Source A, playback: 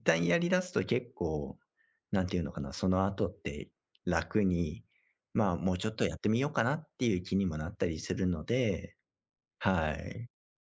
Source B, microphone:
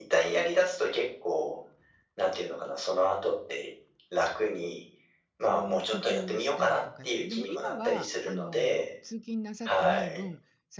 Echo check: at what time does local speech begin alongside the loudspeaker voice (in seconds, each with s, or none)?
5.4 s